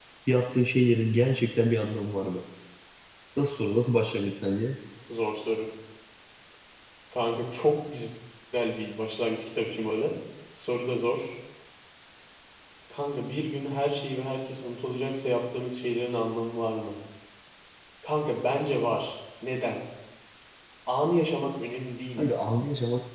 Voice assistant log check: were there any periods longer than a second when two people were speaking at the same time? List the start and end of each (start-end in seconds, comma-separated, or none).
none